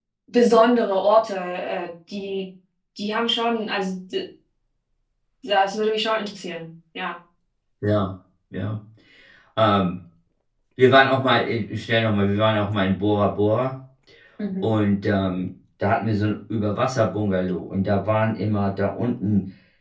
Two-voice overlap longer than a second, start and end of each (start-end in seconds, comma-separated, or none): none